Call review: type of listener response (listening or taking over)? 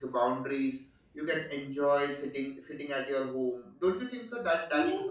taking over